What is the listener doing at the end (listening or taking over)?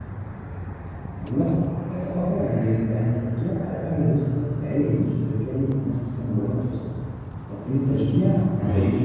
listening